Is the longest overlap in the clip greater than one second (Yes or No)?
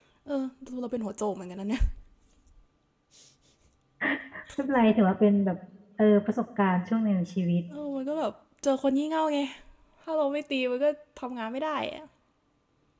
No